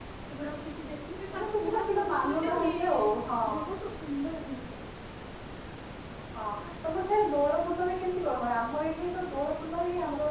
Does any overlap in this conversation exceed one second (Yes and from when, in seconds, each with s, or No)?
Yes, from 1.3 s